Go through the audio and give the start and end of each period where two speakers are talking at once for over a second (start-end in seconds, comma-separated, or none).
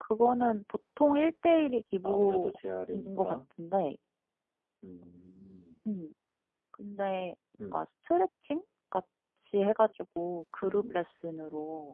none